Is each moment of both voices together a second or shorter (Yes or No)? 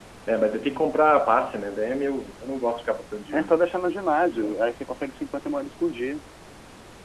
Yes